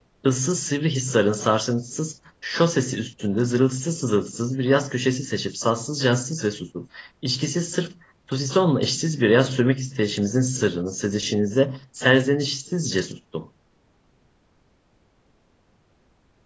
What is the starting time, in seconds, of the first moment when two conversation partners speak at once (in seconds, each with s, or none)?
none